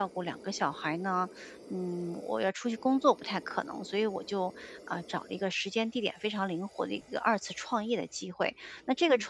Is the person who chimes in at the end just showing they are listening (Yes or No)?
Yes